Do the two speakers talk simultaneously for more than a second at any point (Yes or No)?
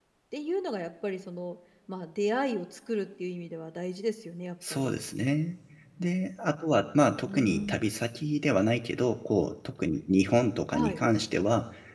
No